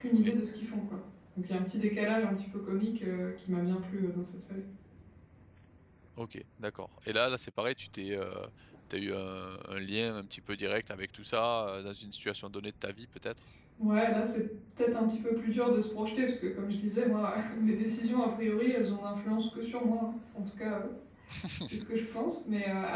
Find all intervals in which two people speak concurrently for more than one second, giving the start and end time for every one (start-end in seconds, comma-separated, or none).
none